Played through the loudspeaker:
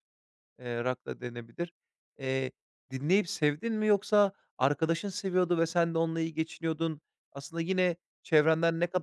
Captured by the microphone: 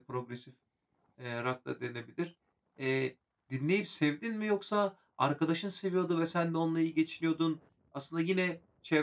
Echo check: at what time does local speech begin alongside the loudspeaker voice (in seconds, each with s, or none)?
none